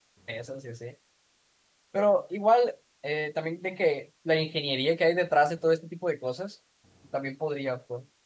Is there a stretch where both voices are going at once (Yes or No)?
No